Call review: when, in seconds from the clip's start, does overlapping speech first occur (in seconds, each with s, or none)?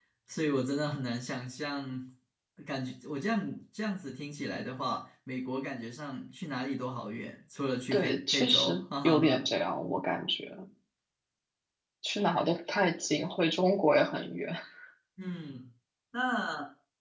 7.9 s